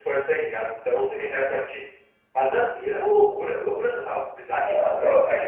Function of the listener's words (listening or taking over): taking over